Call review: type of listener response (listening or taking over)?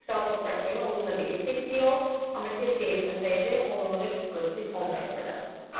taking over